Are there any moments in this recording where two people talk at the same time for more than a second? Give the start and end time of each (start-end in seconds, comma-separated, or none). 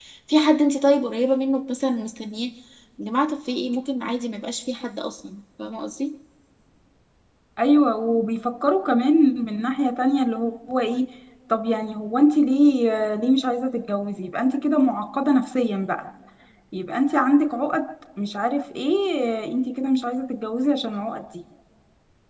none